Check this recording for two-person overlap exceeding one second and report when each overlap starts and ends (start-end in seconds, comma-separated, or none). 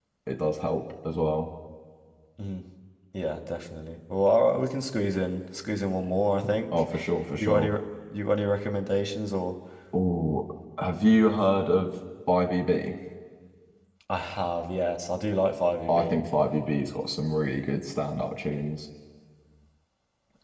none